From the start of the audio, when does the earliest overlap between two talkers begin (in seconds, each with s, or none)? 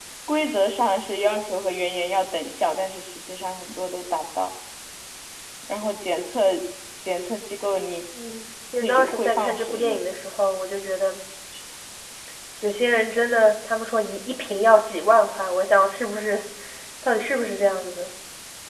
8.8 s